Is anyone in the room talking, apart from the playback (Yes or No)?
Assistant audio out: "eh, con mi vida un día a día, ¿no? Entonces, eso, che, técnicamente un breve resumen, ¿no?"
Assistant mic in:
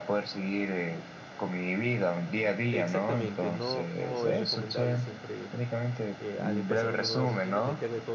Yes